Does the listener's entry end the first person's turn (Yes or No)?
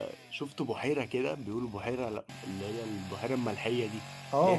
Yes